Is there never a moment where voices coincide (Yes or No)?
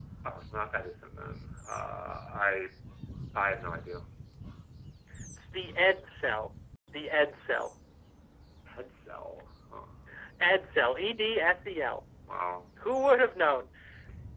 Yes